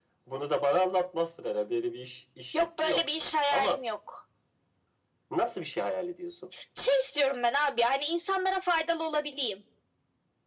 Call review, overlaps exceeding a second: none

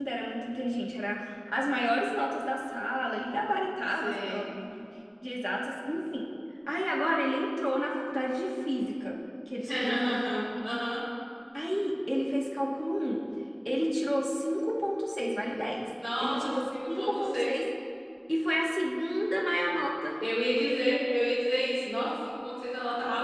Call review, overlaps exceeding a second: present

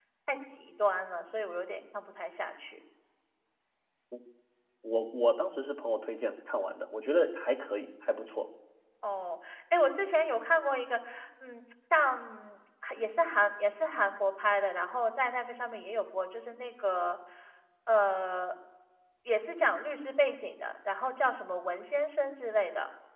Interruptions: none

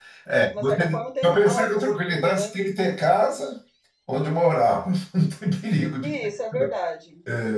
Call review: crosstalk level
present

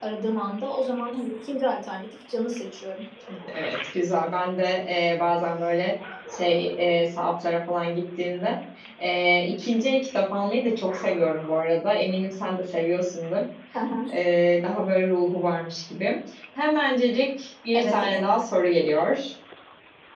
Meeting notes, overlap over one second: none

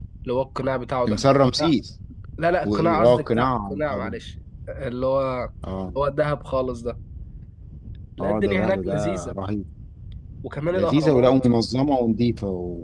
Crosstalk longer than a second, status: present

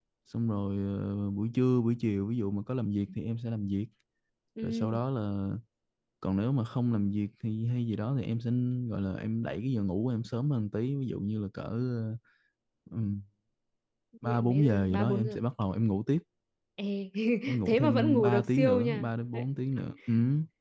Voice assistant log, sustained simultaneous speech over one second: present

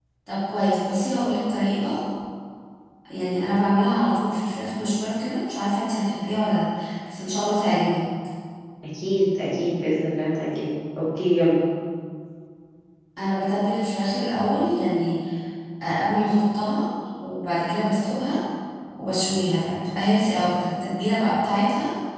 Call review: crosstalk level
none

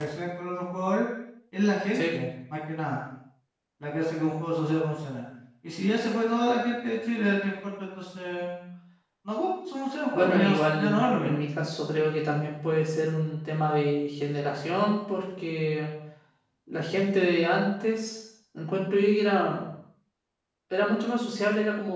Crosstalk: present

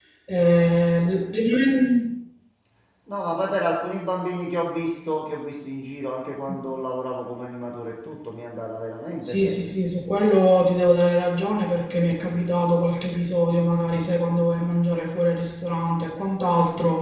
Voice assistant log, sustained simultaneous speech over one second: none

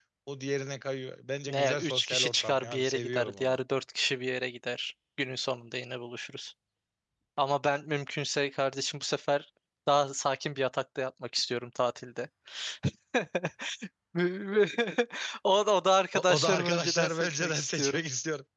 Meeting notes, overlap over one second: present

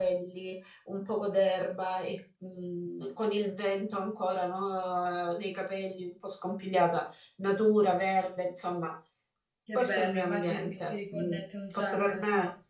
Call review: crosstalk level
present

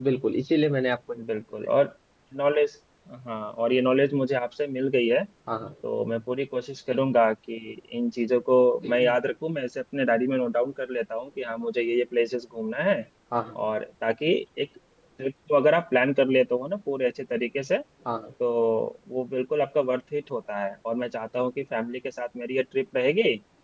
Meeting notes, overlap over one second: none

